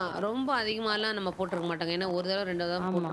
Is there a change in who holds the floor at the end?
Yes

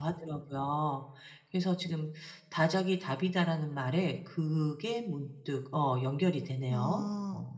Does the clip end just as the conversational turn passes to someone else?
Yes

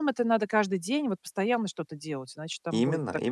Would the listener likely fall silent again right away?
No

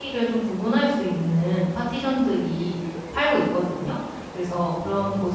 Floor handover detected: No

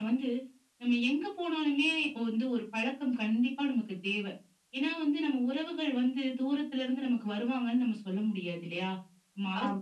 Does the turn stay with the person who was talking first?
Yes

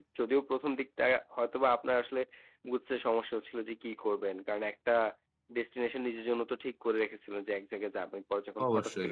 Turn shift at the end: No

